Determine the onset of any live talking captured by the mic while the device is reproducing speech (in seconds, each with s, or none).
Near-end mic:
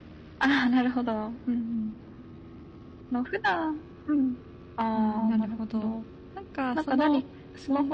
5.0 s